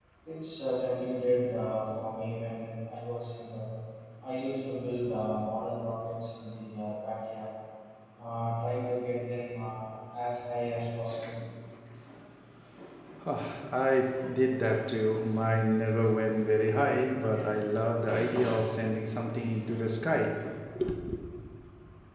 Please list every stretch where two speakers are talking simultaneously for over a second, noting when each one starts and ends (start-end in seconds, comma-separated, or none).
none